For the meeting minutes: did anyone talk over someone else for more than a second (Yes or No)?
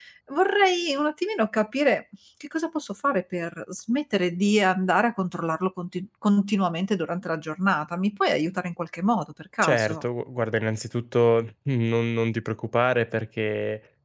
No